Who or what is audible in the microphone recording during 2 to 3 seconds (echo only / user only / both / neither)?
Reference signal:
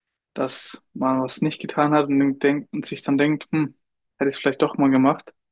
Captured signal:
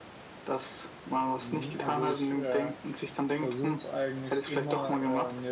both